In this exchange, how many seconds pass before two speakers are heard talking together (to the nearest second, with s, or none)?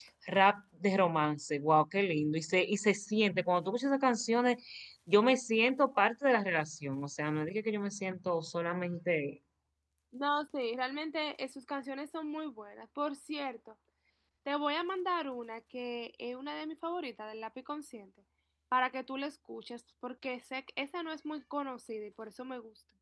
none